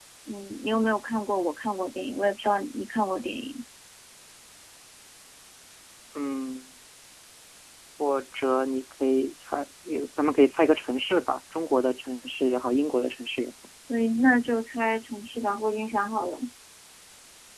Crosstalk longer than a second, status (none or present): none